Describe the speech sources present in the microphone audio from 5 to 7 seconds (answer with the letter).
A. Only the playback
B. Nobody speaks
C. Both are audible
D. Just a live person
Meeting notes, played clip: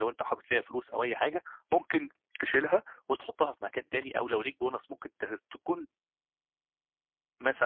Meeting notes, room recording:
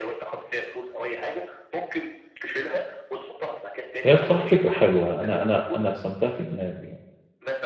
C